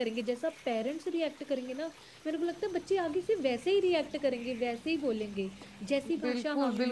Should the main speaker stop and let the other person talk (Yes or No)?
Yes